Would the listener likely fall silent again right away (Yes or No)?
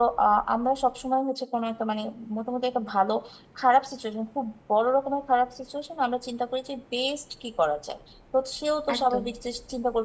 Yes